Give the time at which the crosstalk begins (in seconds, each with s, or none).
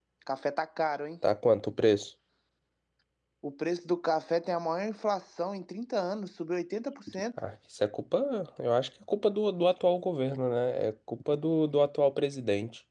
none